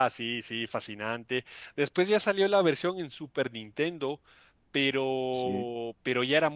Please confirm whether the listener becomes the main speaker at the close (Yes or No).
No